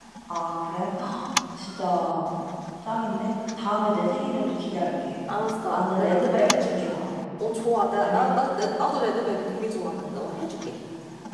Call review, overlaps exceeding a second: present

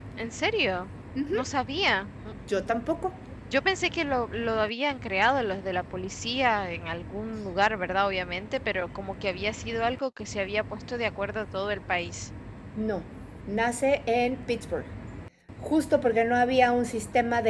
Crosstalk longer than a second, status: none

